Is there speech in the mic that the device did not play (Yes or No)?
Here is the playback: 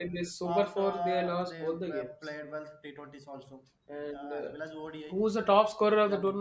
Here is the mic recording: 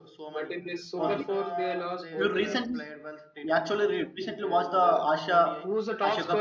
Yes